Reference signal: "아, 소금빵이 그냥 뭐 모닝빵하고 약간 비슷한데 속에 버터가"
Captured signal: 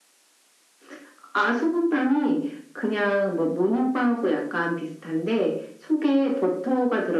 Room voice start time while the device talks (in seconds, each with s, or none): none